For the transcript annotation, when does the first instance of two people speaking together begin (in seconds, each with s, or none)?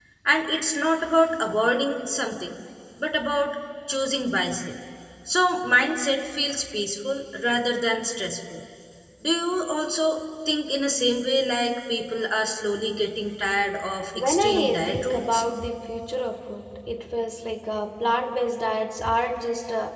14.1 s